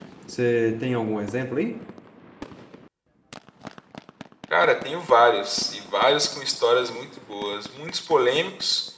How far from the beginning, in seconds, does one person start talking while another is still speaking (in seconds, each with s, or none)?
none